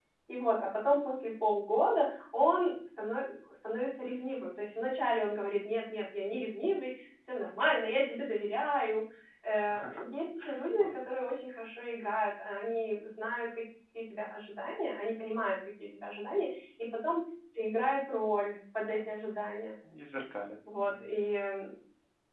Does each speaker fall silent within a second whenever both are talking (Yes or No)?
Yes